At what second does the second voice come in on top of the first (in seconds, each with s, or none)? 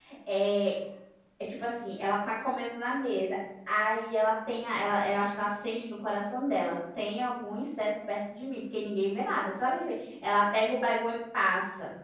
none